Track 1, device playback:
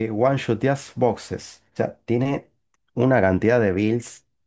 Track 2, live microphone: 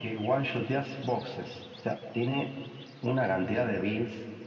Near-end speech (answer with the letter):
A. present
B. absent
B